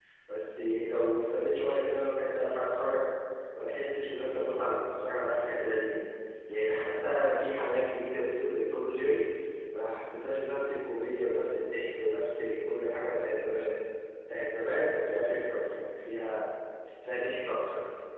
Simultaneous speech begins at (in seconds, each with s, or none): none